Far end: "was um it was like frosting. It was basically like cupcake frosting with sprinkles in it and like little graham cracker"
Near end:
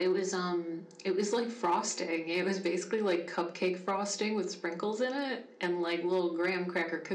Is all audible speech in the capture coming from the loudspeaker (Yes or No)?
Yes